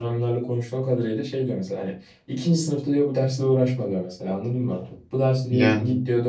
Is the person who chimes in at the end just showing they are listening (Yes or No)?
Yes